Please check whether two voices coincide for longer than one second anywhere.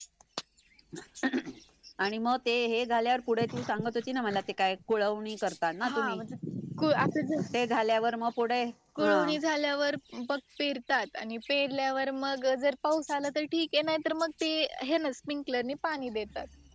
No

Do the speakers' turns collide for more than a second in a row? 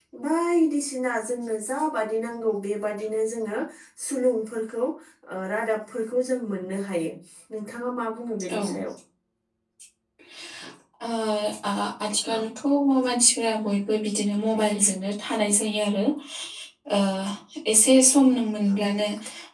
No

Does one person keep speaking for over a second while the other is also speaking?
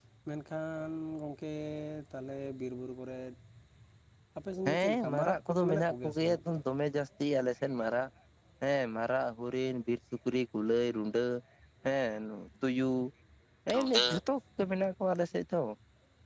Yes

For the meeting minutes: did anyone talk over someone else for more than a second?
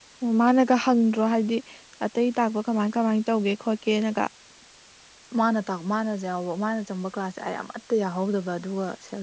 No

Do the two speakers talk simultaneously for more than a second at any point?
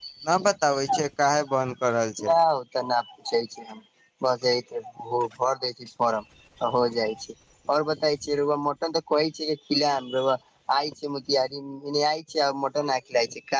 No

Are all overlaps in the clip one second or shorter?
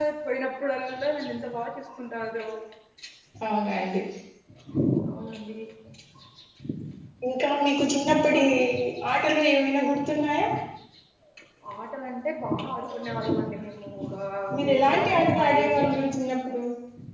No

